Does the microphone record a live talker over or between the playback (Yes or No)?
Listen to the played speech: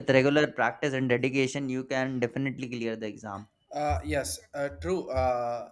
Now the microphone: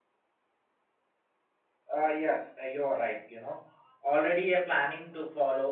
Yes